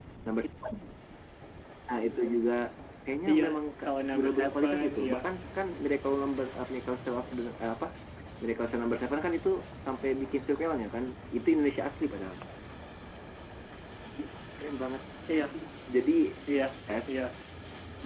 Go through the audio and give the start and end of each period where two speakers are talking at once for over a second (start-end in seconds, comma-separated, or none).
3.8-5.2